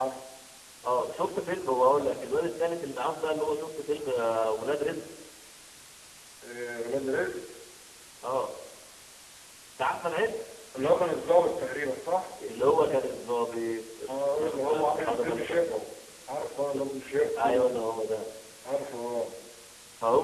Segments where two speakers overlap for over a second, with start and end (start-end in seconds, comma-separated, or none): 14.1-15.8